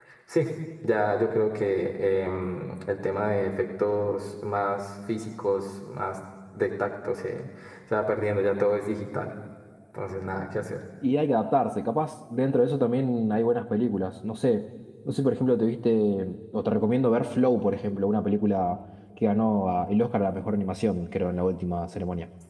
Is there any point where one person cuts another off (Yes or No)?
No